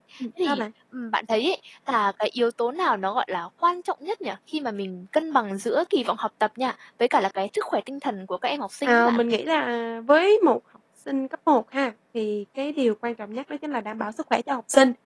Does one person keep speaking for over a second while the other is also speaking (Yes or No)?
No